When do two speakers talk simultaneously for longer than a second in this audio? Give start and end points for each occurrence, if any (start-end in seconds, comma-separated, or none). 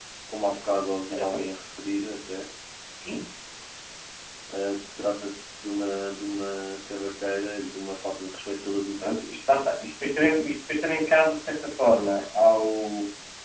none